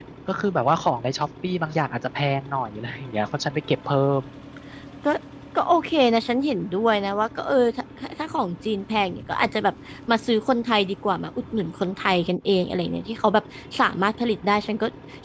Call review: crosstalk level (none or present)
none